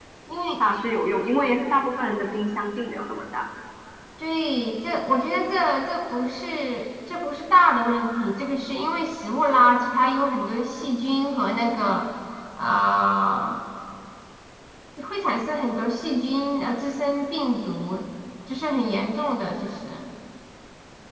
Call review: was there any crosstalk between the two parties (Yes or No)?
No